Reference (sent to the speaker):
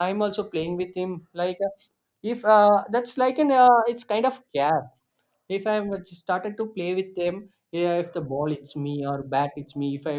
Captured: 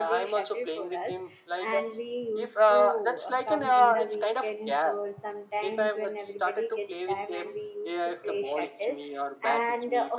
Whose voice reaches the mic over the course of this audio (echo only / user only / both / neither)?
both